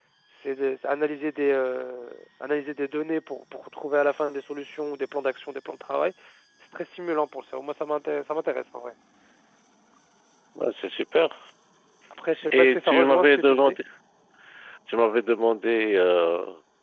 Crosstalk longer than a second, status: present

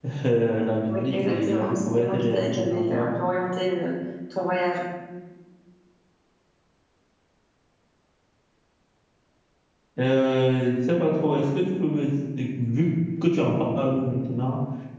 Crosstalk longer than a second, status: present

